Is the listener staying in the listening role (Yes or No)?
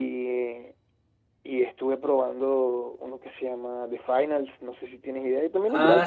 No